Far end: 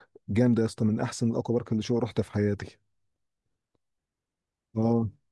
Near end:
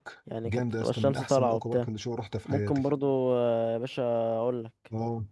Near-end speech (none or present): present